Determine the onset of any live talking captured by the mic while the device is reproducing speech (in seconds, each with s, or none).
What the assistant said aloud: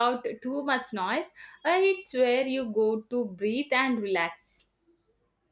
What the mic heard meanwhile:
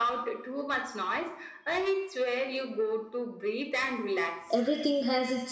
4.5 s